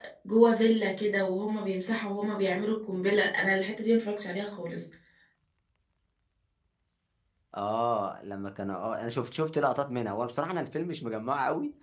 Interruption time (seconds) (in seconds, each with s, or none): none